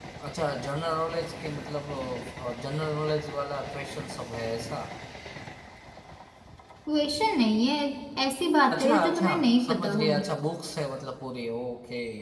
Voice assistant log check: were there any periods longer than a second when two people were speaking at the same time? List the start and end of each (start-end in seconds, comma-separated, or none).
8.7-10.2